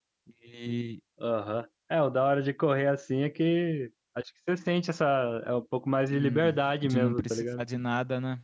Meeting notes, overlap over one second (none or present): present